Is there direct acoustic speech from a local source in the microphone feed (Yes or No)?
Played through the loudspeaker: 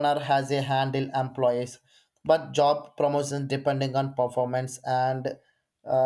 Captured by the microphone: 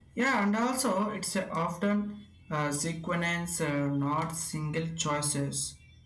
Yes